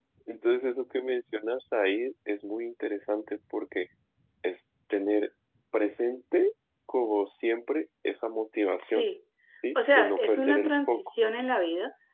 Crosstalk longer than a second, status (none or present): present